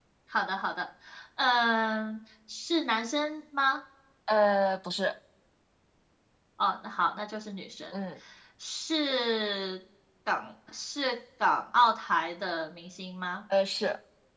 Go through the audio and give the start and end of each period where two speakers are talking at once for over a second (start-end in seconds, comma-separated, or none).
none